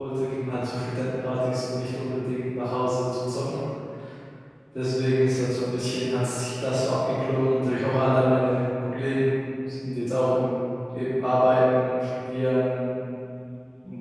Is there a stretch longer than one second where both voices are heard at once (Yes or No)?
No